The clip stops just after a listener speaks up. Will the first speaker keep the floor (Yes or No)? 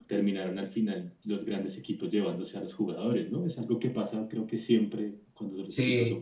No